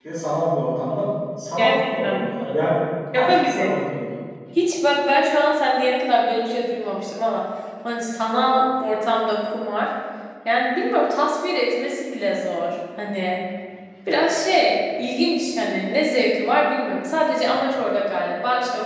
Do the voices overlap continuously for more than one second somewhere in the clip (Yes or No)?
Yes